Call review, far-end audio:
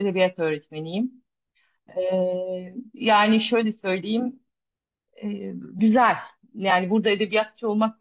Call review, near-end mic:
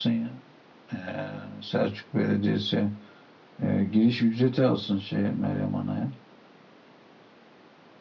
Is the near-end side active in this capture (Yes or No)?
Yes